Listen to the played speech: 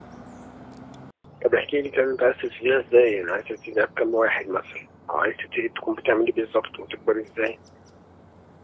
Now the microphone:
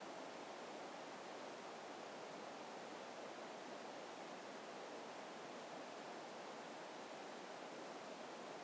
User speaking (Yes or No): No